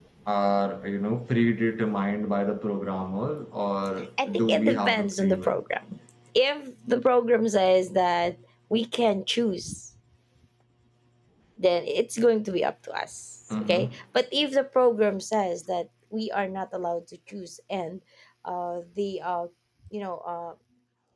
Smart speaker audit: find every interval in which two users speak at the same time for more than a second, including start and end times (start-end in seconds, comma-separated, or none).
4.3-5.6